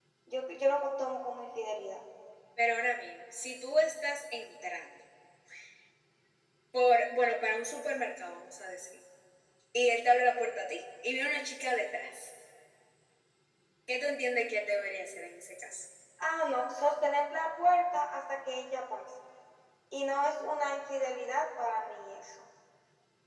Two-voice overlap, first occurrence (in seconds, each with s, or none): none